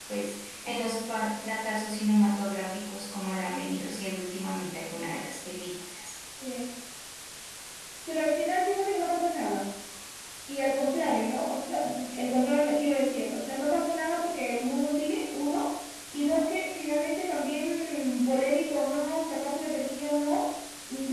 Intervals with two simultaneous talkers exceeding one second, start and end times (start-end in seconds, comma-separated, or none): none